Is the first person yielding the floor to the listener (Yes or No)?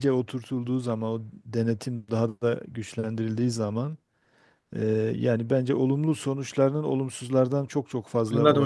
Yes